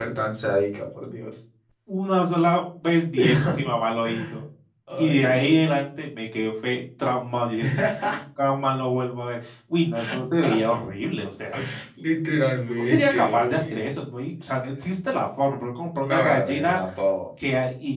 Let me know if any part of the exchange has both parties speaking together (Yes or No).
Yes